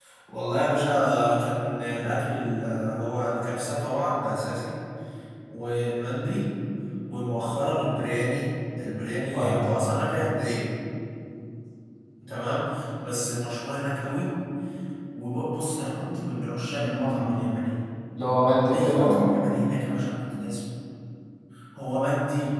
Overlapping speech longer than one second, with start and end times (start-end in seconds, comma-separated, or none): none